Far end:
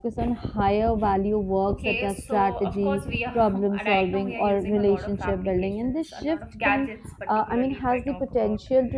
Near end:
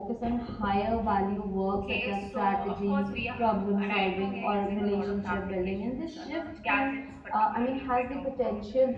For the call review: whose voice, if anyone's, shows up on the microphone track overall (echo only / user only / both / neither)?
echo only